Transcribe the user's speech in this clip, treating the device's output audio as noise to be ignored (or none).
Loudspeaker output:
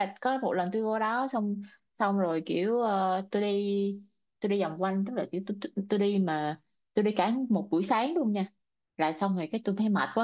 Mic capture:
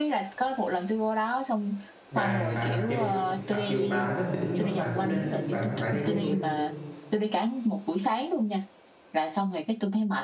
bà bà mặc dù mặc dù bà không thích biển nhưng mà bà cũng nên bà cũng phải đi với tôi